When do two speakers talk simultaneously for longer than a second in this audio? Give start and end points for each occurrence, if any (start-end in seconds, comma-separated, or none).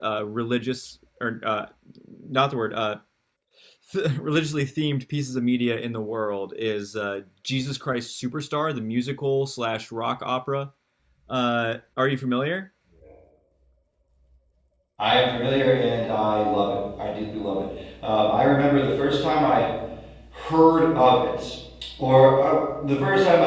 none